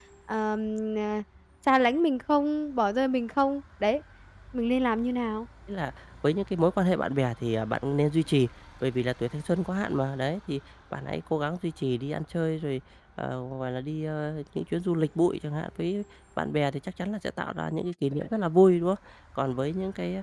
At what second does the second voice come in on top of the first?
none

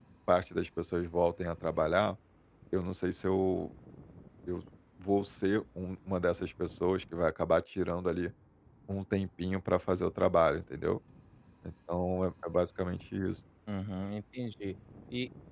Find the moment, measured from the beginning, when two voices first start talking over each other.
none

